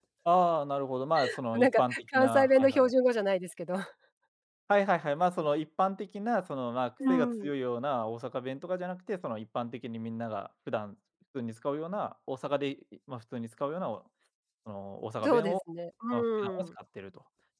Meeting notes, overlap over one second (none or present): present